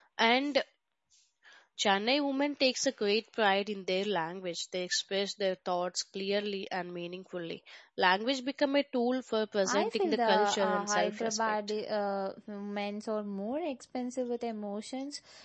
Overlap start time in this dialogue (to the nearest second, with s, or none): 10 s